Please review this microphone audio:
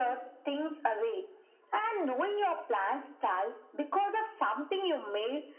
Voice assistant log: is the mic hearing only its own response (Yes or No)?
Yes